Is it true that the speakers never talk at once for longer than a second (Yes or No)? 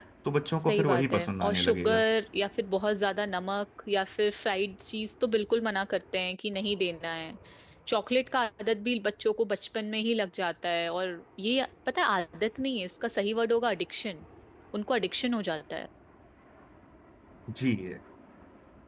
No